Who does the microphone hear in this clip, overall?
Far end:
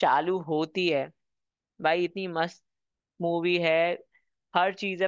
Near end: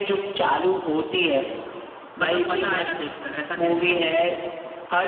both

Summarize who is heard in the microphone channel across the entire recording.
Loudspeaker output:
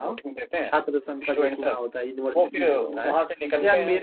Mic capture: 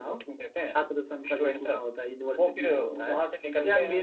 echo only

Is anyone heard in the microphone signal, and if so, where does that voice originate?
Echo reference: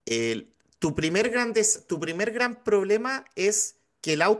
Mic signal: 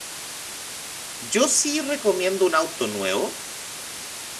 user only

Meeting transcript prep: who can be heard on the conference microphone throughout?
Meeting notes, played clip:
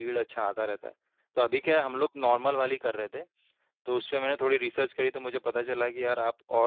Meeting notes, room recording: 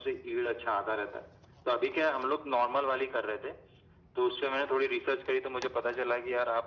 echo only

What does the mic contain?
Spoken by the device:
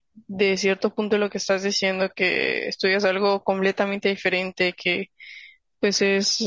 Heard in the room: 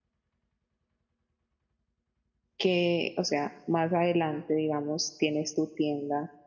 user only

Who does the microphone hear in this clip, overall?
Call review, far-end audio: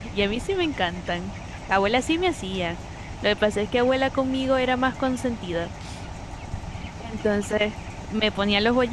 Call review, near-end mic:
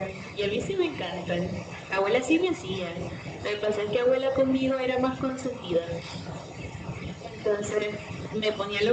echo only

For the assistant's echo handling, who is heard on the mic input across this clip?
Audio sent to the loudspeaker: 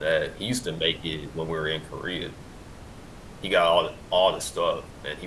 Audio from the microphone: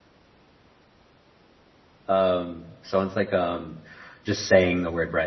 user only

